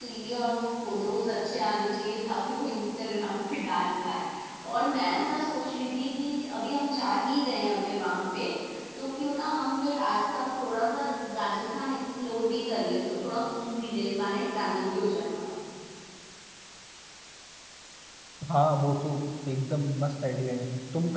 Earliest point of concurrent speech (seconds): none

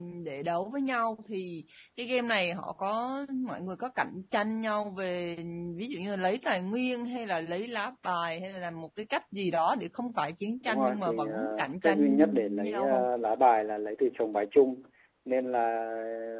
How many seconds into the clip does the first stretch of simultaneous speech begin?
10.7 s

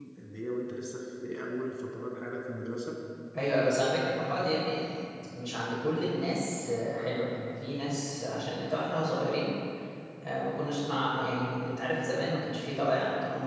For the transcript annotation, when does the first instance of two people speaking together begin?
none

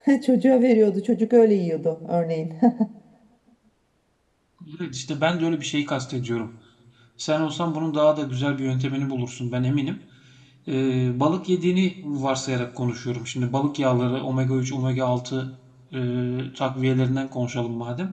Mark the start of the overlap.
none

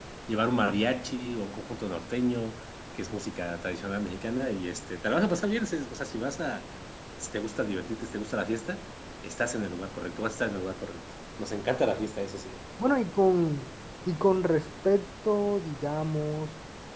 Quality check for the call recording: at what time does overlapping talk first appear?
none

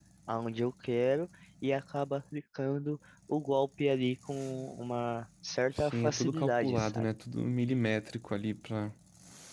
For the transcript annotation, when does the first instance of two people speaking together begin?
5.8 s

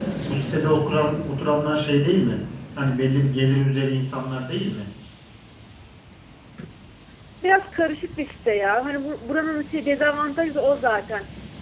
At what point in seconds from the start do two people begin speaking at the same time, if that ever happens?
none

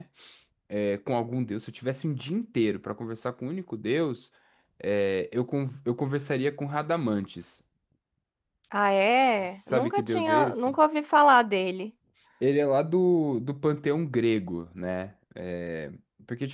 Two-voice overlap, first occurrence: 9.5 s

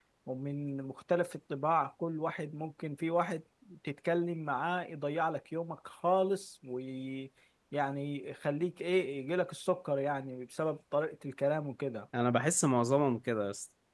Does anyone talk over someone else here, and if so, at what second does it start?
none

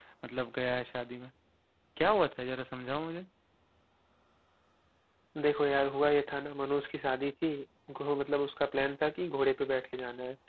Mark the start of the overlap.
none

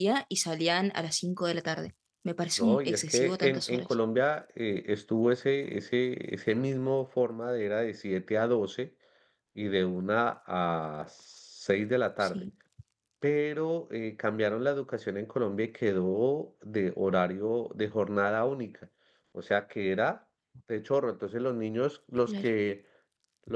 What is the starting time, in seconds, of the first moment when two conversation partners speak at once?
2.6 s

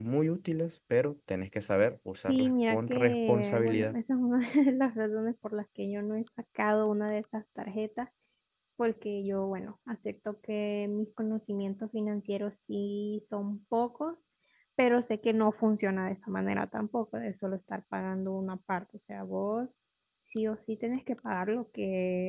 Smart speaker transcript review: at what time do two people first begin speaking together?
2.3 s

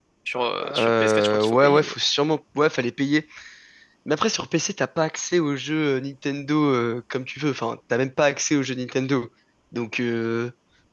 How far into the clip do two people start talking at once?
0.6 s

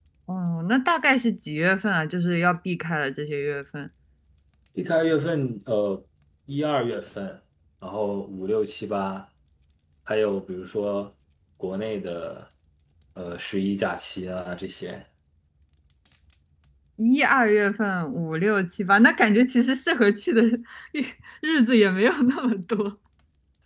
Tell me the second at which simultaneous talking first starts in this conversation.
none

